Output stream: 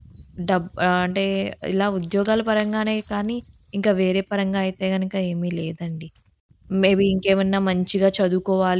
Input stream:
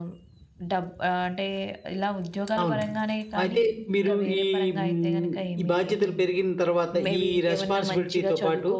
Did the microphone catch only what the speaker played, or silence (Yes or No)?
No